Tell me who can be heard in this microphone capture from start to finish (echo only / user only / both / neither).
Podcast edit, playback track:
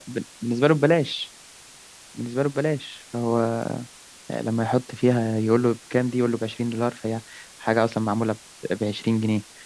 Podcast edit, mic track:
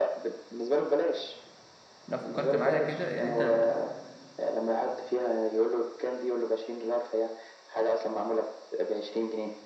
both